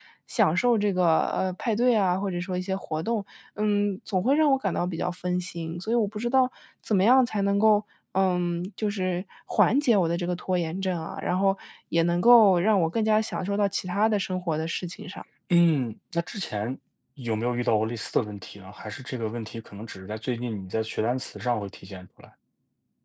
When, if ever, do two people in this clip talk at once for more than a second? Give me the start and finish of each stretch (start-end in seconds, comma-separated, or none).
none